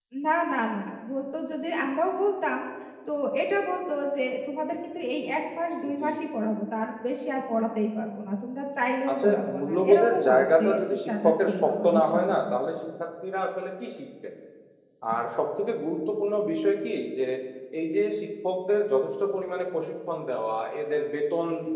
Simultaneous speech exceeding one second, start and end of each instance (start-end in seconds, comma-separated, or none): 9.1-12.6